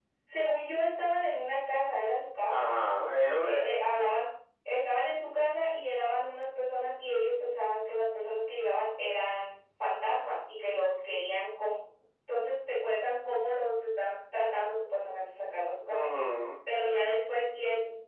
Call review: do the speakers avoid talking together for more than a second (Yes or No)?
Yes